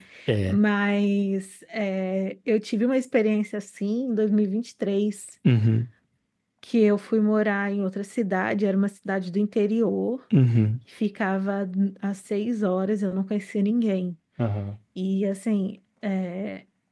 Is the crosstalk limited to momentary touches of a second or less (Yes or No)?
Yes